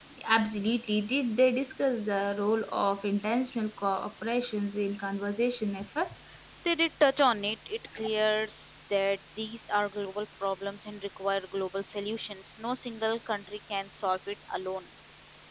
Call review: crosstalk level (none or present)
none